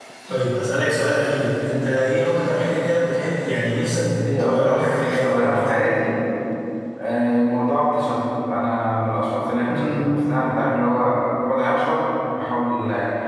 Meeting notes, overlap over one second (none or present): present